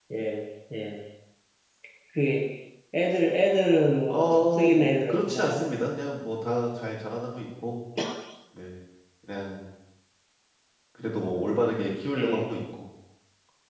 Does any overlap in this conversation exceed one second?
Yes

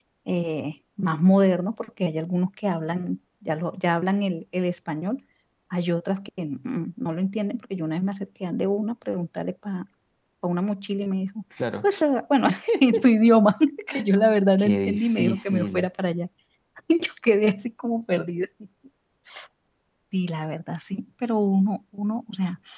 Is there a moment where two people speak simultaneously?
Yes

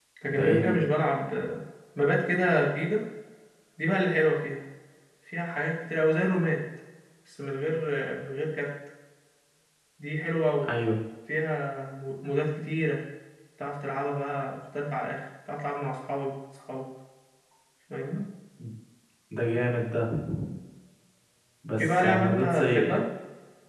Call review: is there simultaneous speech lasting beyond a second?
Yes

